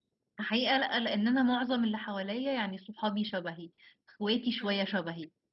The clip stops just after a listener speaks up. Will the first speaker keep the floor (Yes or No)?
Yes